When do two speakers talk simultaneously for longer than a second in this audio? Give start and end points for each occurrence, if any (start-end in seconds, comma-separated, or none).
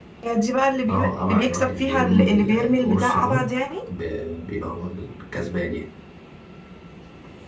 0.9-3.5